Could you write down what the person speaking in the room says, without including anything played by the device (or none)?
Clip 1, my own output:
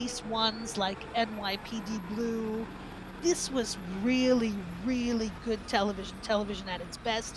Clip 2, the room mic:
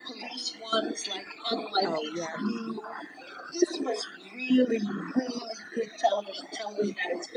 Oh, yeah,